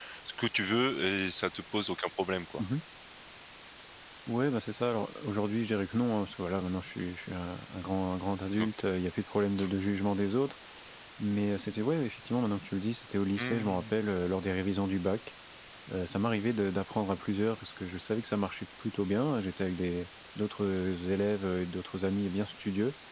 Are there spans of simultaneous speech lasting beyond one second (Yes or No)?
No